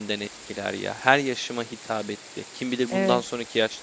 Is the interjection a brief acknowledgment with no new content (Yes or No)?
Yes